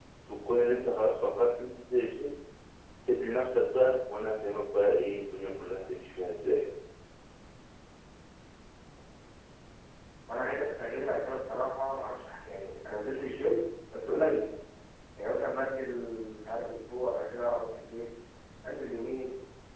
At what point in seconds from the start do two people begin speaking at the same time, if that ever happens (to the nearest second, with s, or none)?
none